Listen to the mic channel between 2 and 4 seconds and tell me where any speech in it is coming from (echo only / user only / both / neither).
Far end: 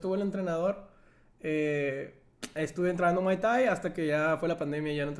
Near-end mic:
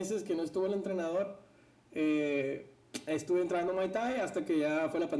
echo only